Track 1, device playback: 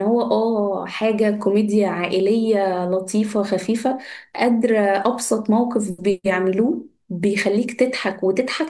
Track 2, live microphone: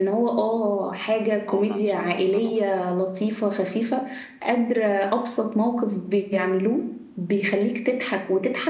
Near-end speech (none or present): present